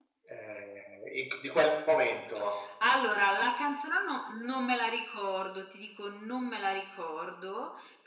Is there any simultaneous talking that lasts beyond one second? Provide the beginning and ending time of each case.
none

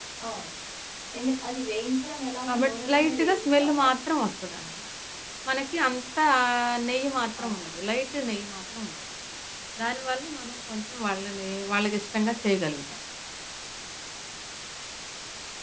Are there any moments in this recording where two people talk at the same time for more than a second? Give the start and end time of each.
2.5-3.9

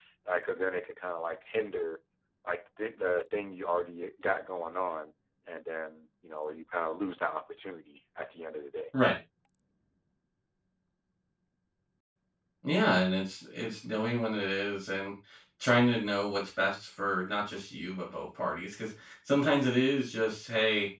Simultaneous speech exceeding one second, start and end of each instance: none

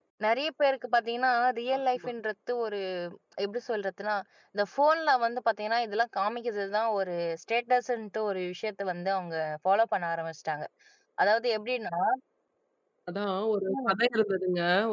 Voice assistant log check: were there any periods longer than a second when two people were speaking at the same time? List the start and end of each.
none

